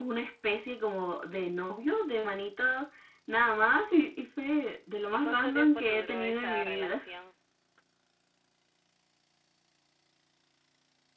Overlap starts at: 5 s

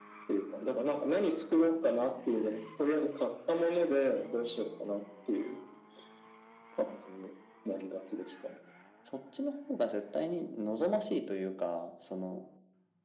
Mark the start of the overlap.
none

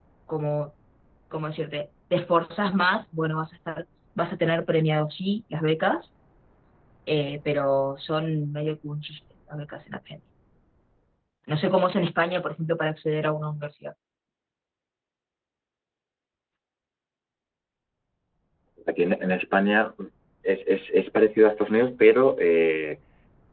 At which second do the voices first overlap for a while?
none

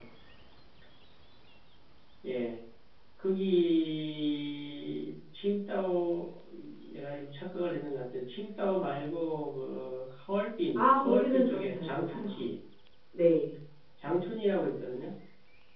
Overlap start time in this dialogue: 11 s

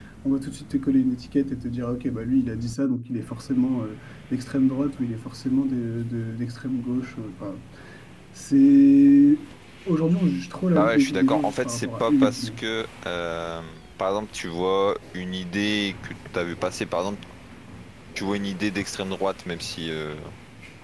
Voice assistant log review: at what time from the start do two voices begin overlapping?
11 s

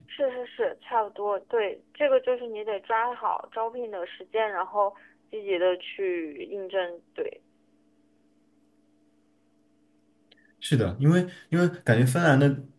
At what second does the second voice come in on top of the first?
none

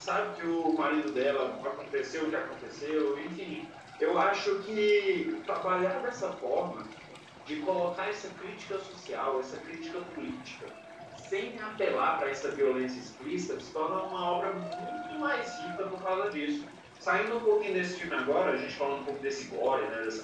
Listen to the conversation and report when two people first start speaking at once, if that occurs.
none

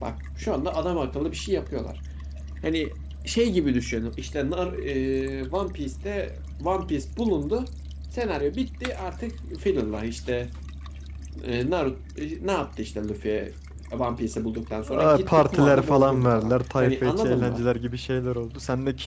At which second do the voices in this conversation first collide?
15 s

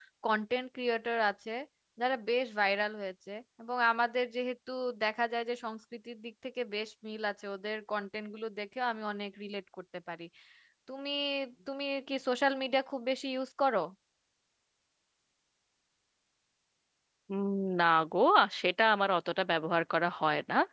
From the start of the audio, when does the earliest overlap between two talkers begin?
none

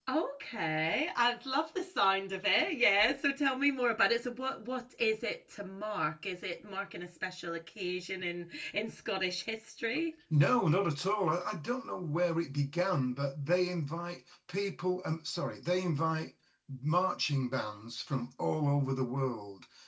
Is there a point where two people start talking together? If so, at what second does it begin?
none

